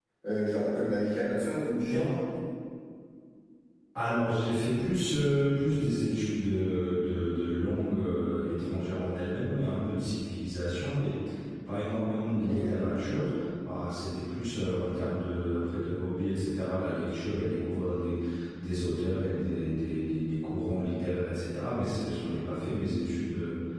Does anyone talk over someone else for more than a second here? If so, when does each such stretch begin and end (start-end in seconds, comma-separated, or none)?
none